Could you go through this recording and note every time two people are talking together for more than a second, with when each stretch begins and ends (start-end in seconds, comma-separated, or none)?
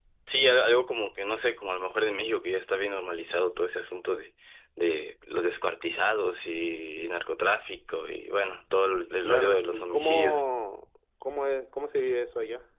9.2-10.4